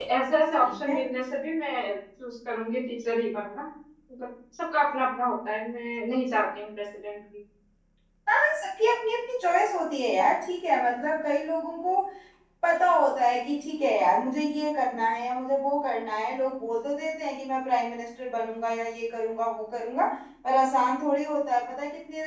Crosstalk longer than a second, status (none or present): none